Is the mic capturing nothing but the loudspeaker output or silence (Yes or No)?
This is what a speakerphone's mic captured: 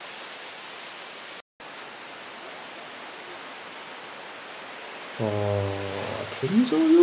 No